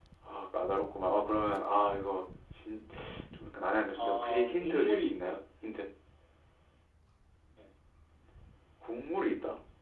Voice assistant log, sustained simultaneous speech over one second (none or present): present